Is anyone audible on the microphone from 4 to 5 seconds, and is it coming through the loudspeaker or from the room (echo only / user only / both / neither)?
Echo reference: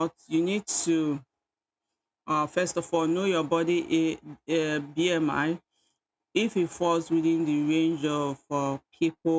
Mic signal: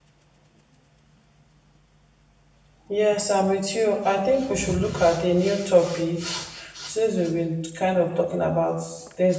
user only